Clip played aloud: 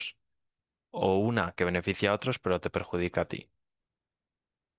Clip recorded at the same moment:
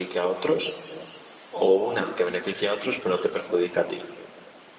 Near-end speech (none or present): none